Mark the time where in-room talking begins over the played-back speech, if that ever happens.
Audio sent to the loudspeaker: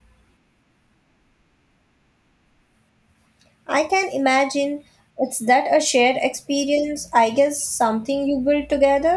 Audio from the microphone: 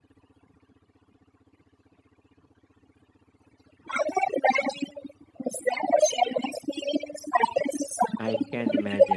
8.2 s

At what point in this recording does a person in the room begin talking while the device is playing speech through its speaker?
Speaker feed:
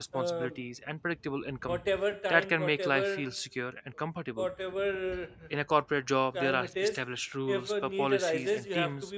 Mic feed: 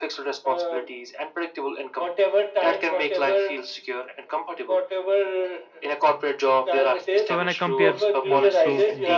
7.2 s

